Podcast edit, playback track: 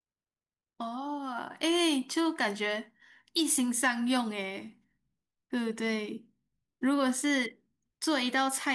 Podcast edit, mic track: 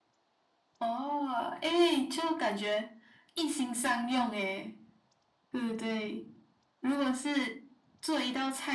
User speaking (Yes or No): No